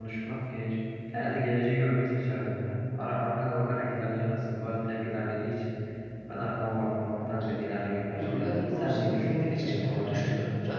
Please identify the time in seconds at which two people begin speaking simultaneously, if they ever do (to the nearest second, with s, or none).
8 s